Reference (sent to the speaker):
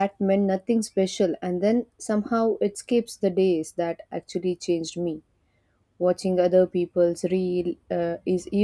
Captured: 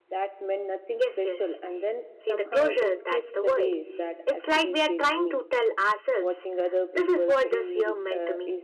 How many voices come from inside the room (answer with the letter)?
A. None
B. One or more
B